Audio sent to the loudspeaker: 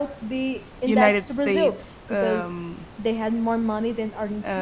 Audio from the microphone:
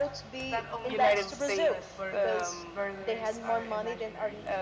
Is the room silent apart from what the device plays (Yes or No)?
No